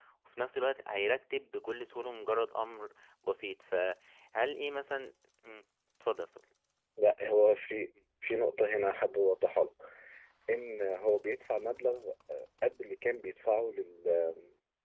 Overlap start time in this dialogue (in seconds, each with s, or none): none